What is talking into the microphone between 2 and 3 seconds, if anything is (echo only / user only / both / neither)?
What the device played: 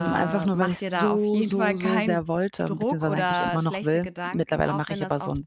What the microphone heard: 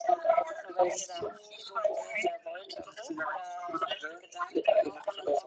echo only